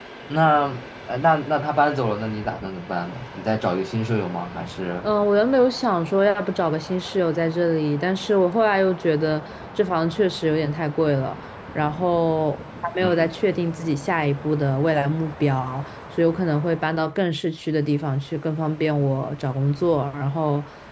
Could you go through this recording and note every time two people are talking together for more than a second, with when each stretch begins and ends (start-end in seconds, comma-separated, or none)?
none